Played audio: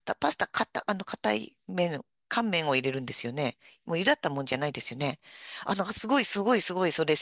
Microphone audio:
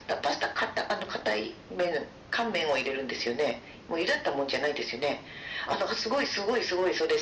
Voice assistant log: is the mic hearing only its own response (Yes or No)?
Yes